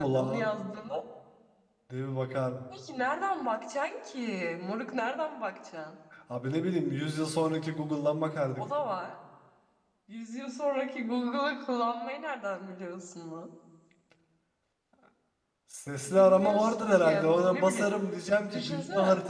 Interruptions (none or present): present